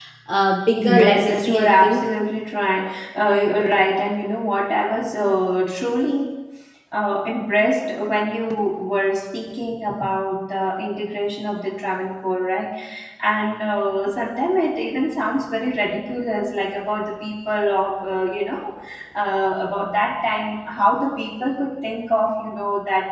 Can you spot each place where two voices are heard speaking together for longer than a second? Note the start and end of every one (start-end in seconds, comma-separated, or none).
0.8-2.0